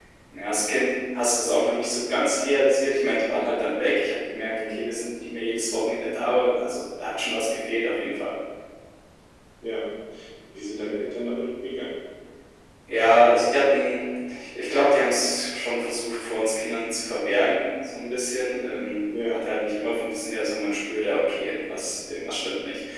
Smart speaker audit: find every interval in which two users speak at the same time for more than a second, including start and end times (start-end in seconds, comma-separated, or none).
none